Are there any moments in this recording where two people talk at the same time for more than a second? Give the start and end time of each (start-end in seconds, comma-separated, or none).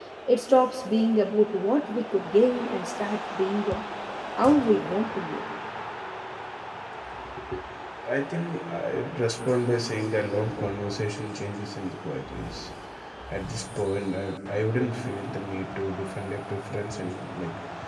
none